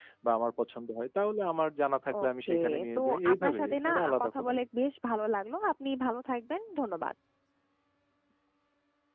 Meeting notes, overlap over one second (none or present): present